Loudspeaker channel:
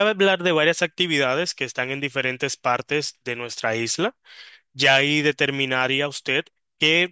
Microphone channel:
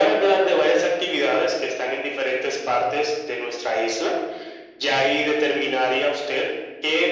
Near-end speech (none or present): none